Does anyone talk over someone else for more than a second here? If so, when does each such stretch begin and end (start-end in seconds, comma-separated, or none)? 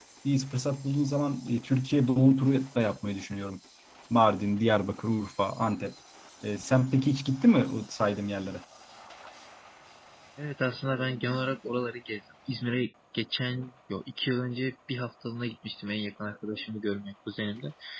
none